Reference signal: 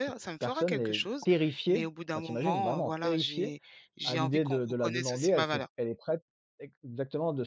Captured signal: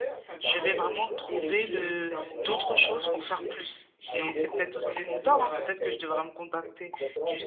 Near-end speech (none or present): present